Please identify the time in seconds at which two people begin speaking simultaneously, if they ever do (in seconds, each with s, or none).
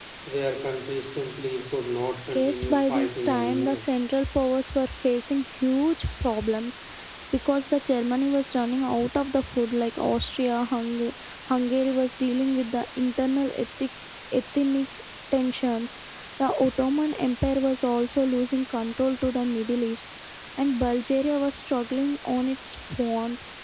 2.3 s